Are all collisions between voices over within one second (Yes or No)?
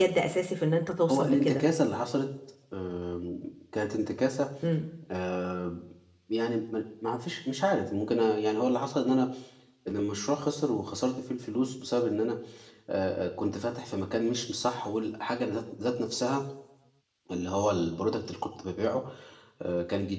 Yes